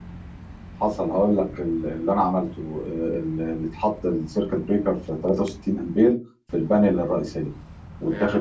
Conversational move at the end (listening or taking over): listening